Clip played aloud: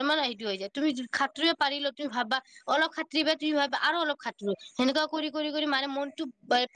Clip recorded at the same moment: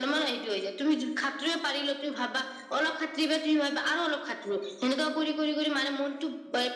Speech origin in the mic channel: echo only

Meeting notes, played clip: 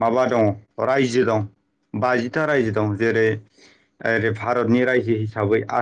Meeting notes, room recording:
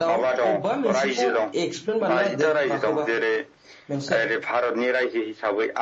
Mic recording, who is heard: both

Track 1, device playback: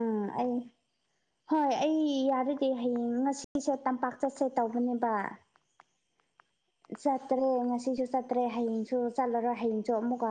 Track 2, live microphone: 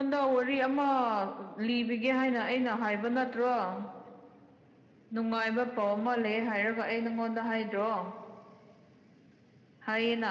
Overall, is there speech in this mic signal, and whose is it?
user only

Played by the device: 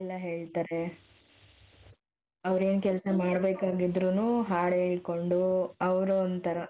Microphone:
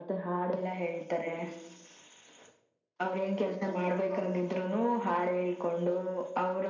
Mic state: echo only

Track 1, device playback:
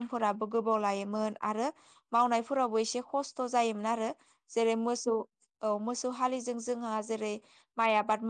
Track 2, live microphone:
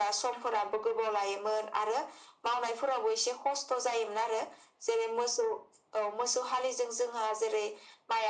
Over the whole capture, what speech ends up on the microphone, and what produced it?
echo only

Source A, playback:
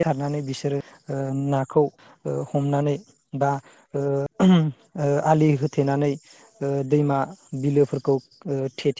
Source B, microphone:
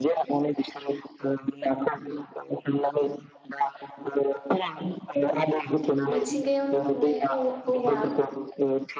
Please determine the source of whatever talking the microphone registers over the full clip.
both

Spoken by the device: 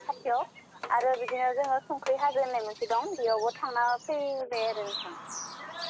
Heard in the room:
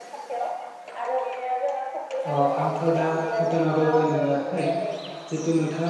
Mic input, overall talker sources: both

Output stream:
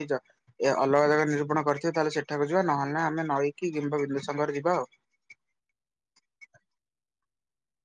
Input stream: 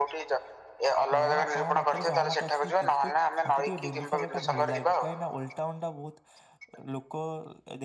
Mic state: both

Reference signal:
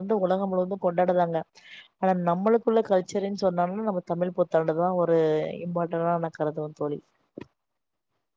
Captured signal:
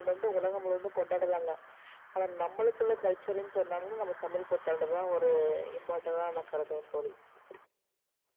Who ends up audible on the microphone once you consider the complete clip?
echo only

